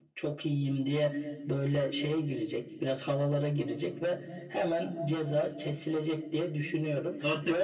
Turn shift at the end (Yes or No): Yes